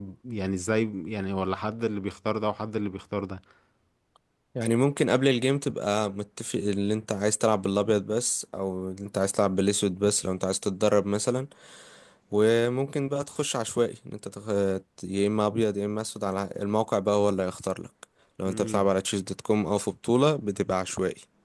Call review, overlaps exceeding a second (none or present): none